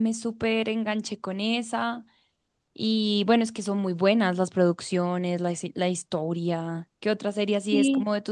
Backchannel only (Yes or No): No